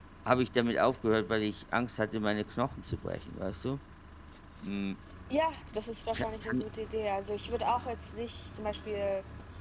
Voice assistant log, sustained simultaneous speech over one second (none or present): none